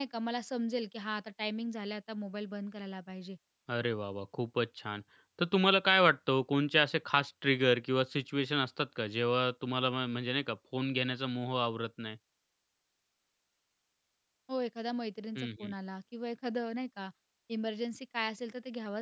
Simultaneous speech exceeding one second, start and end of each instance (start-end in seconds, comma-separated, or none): none